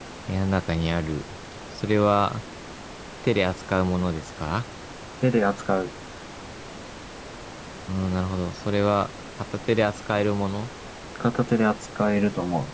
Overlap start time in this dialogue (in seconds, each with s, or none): none